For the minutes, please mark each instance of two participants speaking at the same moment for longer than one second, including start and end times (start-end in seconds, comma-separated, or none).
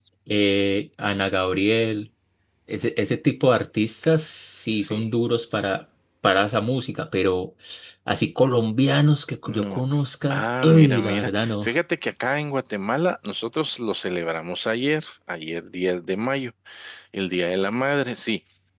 10.3-11.7